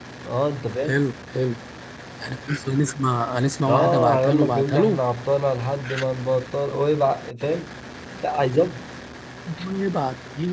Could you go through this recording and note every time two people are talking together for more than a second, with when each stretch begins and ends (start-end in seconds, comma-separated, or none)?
3.7-5.0